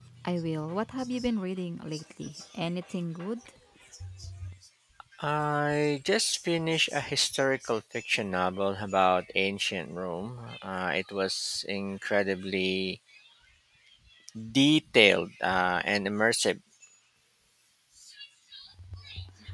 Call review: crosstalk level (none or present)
none